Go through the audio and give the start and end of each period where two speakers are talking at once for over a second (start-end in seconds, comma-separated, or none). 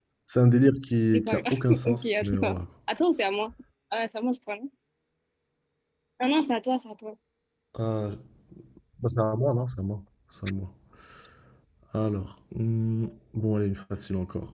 1.1-2.5